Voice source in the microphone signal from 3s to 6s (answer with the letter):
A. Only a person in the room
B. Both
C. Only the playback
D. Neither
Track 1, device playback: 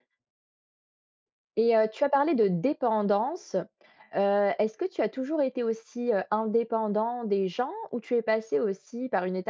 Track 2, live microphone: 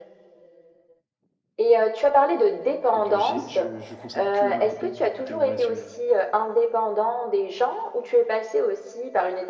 B